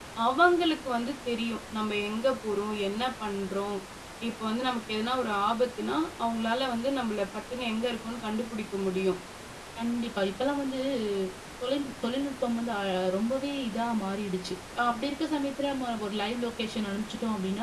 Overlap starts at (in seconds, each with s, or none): none